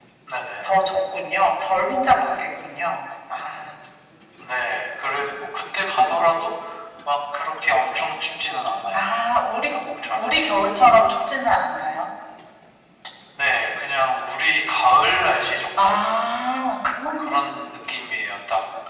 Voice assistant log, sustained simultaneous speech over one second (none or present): none